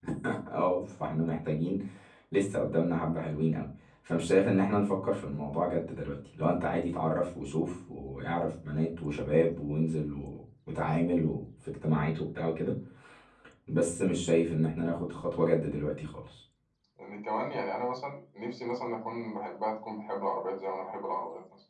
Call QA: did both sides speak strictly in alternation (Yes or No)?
Yes